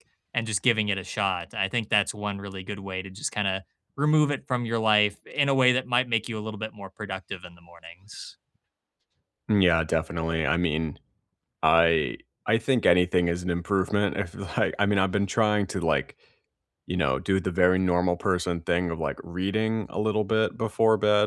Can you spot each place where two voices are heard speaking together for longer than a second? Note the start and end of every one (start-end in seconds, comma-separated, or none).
none